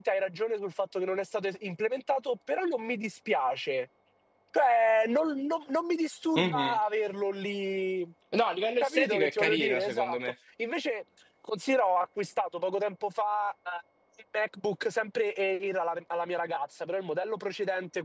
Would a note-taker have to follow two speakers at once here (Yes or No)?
Yes